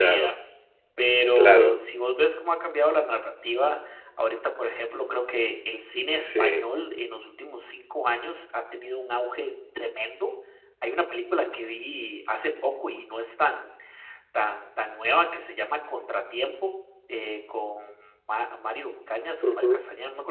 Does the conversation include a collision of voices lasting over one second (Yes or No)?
No